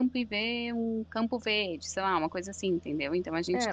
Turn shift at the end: Yes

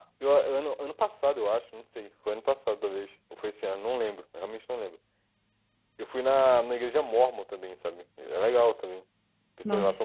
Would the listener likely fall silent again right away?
No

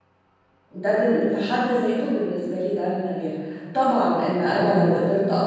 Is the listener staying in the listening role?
Yes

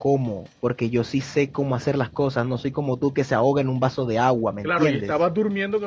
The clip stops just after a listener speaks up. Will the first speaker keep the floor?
No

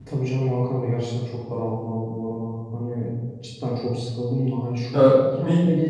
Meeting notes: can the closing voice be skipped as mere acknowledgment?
Yes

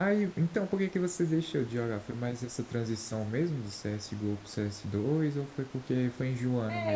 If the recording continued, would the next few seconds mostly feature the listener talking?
Yes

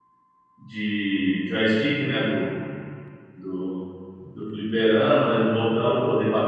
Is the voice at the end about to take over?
No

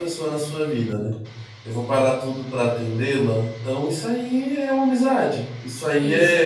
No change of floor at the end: Yes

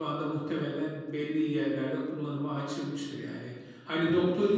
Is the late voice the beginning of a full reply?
No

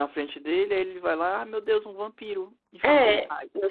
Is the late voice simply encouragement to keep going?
No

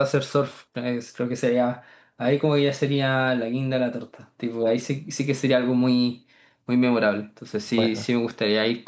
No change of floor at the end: Yes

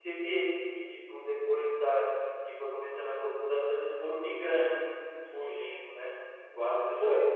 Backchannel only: No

